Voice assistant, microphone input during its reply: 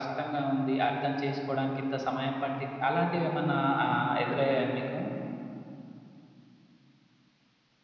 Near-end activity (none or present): none